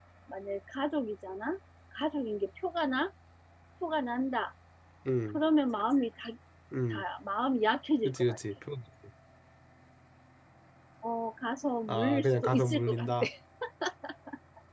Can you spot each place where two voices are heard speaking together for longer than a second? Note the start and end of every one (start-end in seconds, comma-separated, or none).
11.9-13.1